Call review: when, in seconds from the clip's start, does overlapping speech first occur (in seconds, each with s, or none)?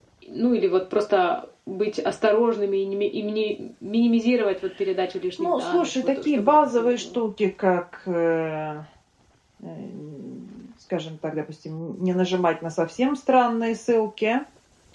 5.4 s